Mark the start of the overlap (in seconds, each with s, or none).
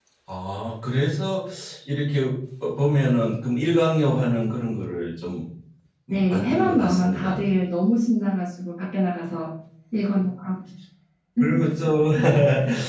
6.1 s